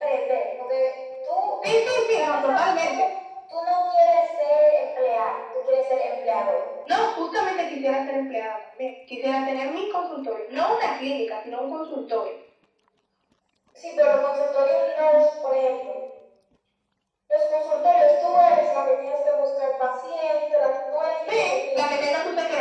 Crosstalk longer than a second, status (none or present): present